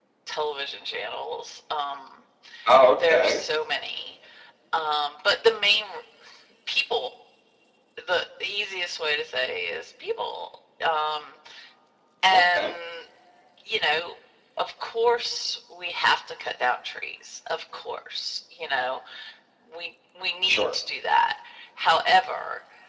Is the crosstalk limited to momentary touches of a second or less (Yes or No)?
Yes